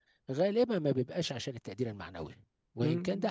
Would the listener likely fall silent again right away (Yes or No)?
Yes